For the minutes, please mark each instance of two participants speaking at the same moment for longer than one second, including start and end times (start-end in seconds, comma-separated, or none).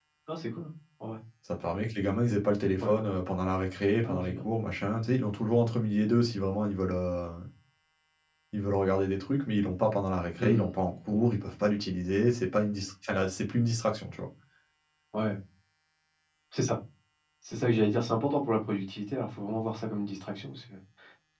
none